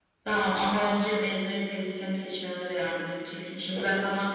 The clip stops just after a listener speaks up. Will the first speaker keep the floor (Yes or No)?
Yes